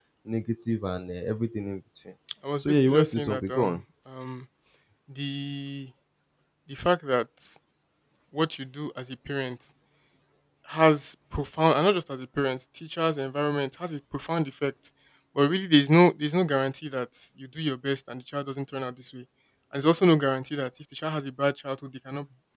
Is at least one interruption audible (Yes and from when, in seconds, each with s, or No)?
Yes, from 2.6 s